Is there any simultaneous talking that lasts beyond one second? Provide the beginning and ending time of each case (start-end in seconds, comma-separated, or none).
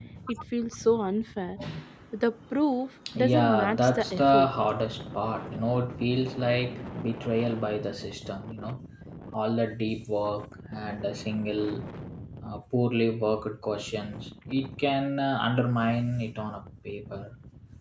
3.1-4.5